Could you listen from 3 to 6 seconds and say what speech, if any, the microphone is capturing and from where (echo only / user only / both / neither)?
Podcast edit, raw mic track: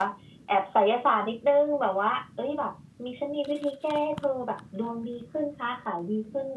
user only